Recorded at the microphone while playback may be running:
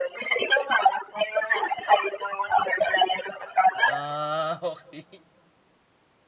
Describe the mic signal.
both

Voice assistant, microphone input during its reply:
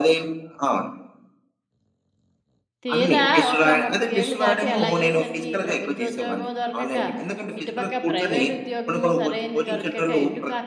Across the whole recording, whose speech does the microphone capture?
both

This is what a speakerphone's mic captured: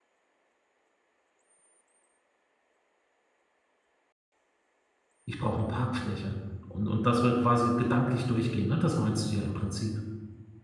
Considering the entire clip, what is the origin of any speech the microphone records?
user only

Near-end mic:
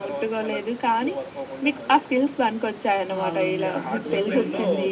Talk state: both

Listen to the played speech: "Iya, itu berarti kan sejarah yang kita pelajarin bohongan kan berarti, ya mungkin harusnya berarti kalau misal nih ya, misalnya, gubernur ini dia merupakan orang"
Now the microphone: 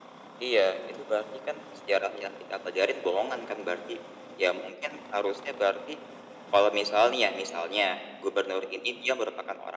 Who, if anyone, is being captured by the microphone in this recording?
echo only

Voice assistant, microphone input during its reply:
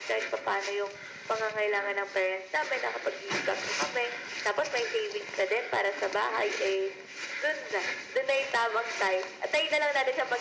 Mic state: echo only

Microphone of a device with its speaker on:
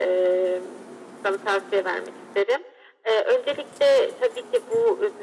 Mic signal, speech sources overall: echo only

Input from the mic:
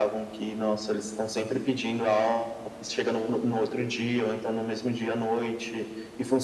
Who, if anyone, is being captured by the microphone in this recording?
echo only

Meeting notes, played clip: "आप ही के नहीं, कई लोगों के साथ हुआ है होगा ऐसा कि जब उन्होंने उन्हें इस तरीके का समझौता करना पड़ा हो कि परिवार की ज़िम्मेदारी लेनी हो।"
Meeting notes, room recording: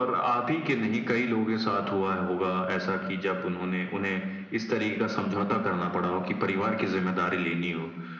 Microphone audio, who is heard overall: echo only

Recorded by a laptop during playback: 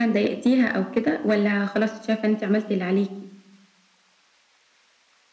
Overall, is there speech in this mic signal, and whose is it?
echo only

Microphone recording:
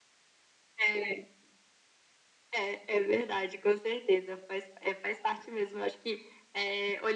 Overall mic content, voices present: echo only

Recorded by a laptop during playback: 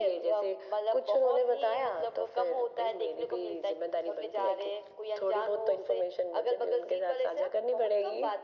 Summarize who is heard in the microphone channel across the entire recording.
echo only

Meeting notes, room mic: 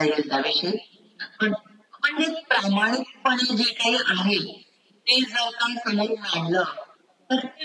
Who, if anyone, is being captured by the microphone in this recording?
echo only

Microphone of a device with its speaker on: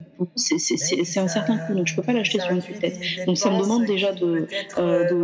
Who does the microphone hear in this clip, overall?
both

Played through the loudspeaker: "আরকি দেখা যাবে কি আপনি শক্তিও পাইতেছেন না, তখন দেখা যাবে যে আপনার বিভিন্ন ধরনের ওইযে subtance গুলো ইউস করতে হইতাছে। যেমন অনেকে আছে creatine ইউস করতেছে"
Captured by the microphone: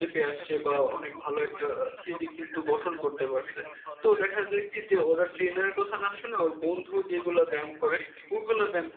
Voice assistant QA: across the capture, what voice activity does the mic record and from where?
both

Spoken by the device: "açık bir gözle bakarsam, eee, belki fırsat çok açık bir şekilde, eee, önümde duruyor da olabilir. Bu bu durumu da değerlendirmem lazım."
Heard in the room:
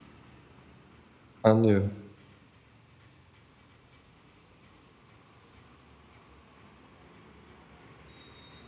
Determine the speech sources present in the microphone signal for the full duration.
user only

